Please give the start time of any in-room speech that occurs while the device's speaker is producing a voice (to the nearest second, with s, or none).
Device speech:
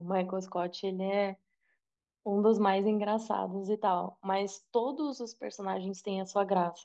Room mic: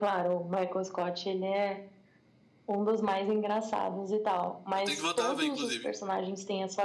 5 s